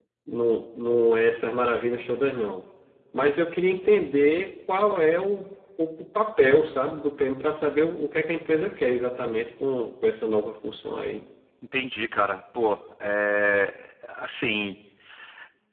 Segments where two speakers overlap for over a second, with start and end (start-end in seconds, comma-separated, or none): none